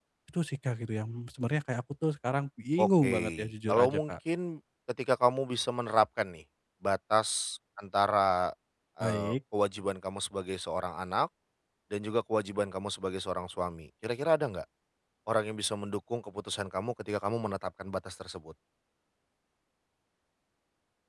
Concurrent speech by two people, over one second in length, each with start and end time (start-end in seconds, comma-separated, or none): 2.8-4.1